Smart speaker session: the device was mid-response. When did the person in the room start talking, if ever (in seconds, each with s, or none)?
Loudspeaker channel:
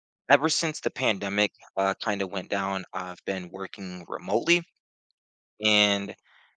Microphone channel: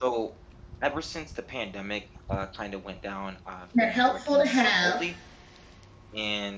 3.8 s